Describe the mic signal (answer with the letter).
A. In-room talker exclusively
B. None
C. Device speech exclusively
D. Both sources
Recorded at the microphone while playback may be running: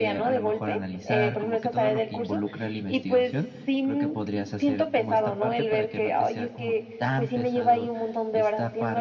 C